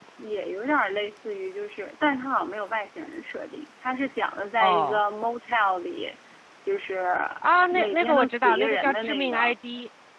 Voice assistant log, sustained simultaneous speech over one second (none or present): present